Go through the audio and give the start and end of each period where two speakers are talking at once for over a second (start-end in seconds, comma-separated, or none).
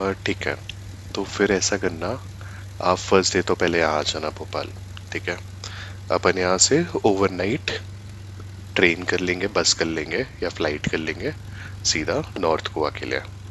none